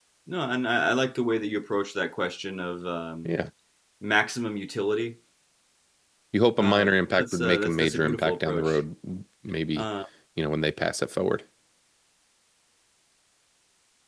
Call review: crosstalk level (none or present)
present